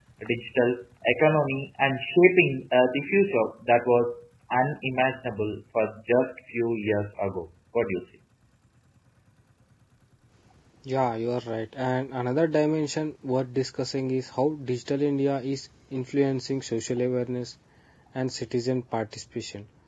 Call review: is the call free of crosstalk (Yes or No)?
Yes